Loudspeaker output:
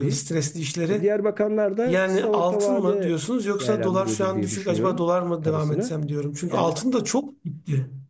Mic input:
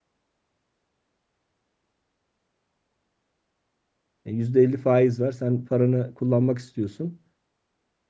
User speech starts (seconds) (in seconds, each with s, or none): 4.2 s